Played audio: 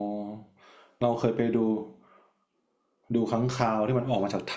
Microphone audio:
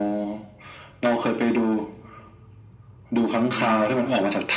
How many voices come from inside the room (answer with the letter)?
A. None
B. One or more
B